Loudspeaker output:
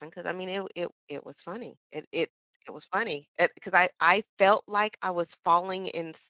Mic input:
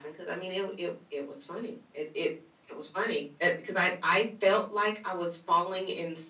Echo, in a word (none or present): present